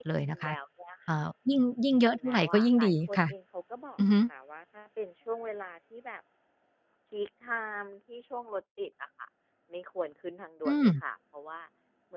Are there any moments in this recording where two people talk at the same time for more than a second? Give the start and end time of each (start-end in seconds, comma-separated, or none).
1.9-3.2